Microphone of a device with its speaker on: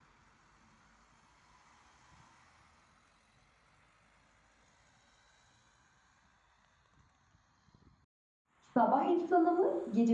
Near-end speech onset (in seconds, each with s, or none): 8.6 s